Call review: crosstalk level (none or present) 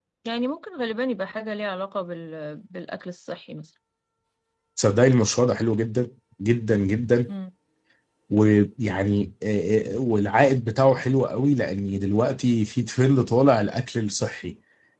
none